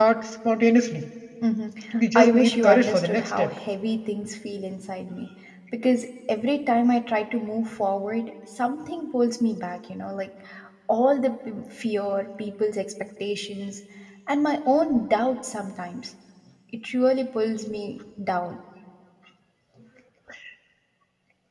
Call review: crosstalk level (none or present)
present